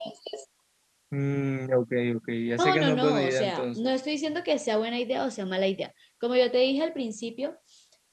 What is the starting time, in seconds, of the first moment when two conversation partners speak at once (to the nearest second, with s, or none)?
3 s